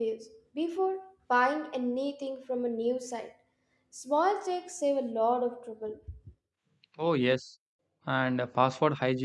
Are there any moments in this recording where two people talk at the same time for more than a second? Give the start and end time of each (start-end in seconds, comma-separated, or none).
none